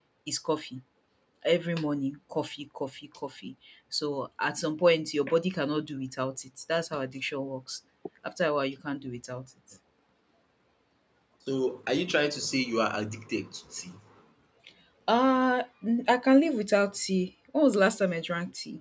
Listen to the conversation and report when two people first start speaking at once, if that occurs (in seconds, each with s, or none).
none